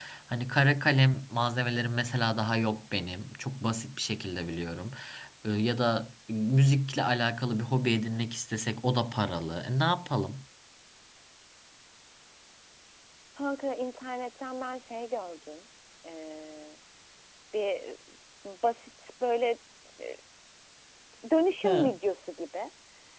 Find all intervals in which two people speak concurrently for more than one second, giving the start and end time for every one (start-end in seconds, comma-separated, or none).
none